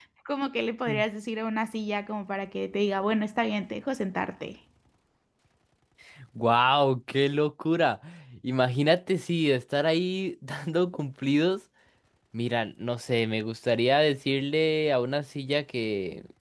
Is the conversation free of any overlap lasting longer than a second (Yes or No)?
Yes